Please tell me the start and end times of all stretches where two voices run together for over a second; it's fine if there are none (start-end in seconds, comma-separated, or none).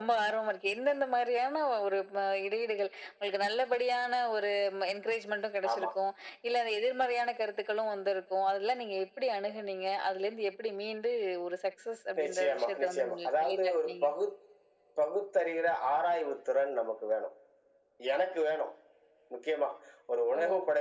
12.2-14.1